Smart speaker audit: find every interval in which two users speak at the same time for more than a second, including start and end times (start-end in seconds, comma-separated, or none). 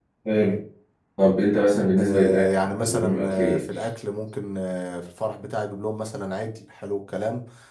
2.0-3.6